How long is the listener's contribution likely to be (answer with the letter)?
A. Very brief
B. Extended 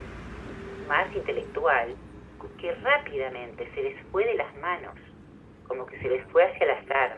A